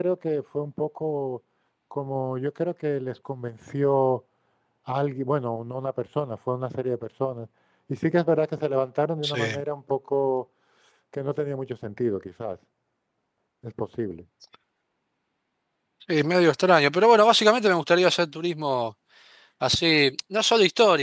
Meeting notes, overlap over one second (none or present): none